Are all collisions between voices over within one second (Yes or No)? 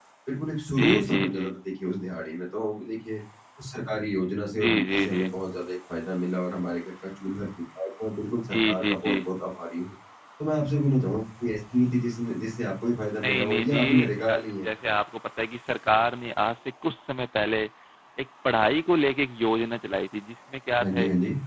No